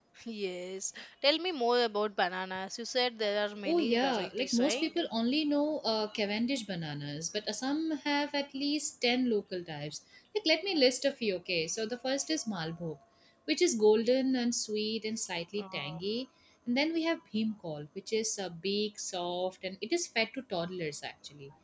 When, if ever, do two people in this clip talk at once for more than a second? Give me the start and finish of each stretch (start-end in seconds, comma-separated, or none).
3.6-4.9